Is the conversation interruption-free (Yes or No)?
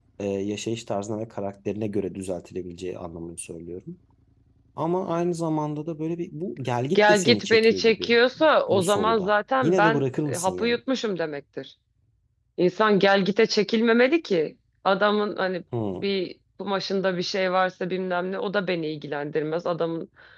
No